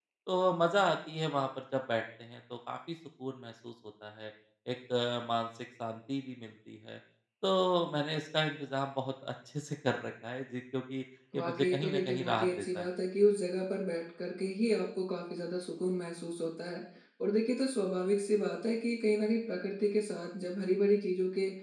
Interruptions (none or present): present